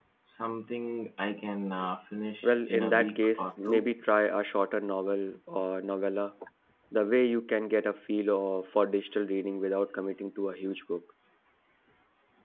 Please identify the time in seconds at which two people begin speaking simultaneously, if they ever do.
2.4 s

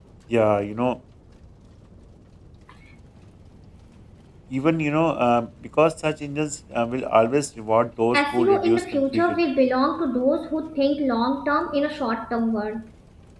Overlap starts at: 8.1 s

